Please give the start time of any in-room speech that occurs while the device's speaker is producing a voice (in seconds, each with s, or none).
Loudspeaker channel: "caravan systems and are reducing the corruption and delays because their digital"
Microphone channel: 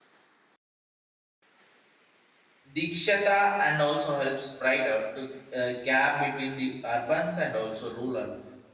2.8 s